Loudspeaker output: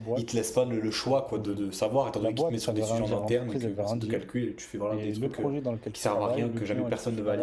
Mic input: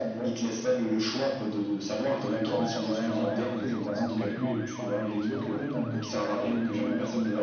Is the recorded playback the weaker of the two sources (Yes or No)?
No